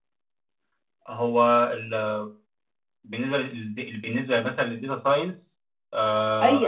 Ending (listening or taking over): taking over